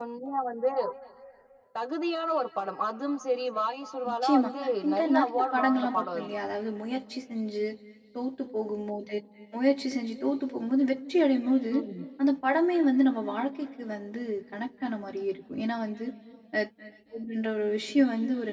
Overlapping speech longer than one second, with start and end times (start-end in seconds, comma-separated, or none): 4.9-6.3